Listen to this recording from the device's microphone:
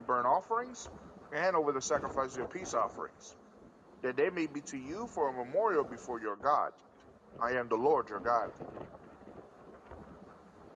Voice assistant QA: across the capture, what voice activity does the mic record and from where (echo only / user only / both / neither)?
user only